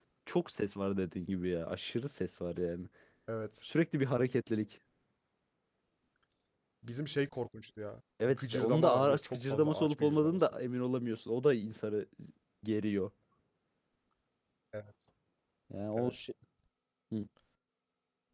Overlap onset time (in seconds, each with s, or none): 8.2 s